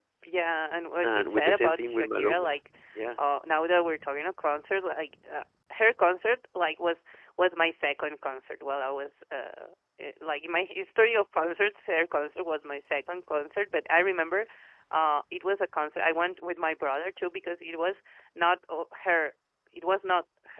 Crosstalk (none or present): present